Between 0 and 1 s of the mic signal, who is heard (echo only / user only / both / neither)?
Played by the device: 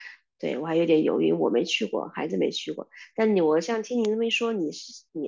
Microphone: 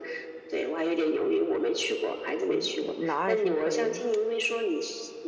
echo only